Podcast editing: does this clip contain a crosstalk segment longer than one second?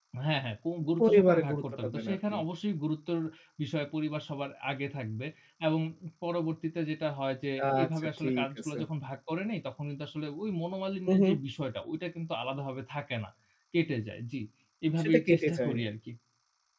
Yes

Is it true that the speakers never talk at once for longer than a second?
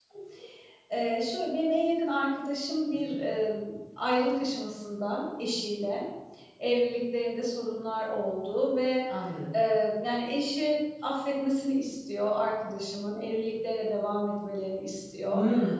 Yes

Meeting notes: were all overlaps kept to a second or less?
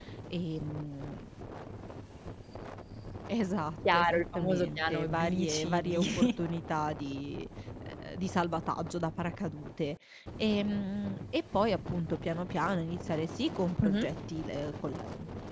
No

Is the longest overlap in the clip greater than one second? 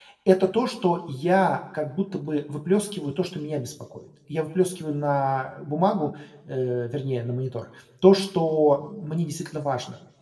No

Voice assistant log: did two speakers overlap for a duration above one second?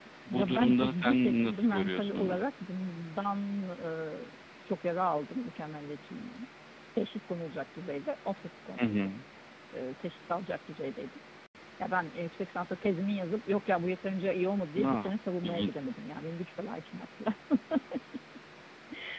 Yes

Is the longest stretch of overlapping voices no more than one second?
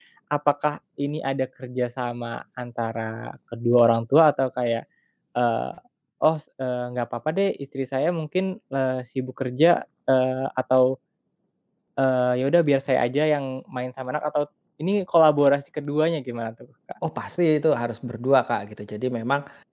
Yes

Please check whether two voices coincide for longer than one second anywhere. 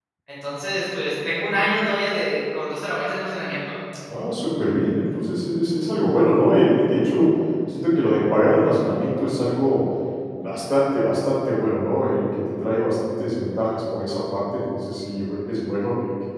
No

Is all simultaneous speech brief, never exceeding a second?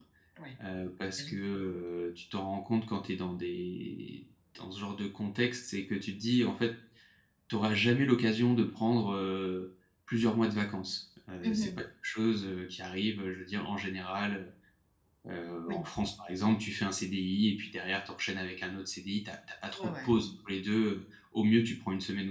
Yes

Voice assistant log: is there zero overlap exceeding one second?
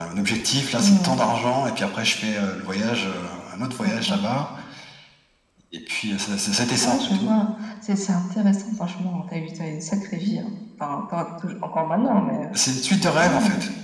Yes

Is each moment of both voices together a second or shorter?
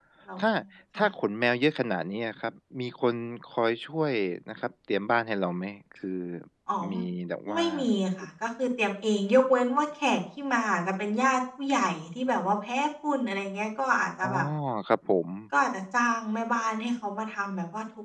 Yes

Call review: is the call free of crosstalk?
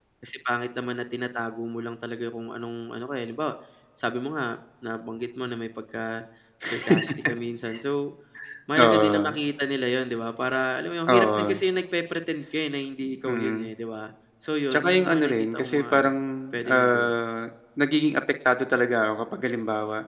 No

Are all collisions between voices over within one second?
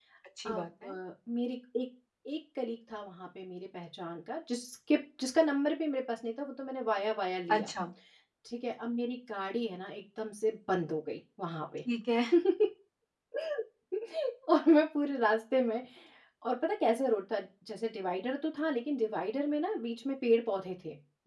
Yes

